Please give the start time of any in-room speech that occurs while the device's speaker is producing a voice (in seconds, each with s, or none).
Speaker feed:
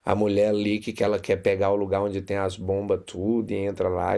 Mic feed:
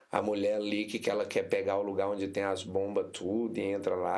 none